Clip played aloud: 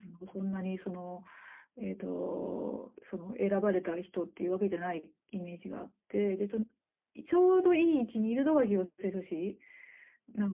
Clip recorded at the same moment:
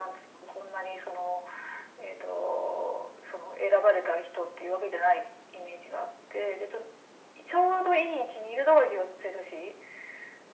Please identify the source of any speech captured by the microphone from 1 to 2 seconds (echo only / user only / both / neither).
echo only